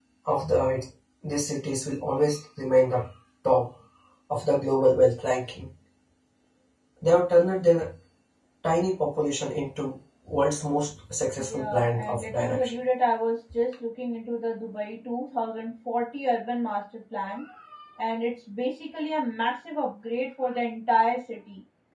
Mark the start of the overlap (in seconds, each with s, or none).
11.4 s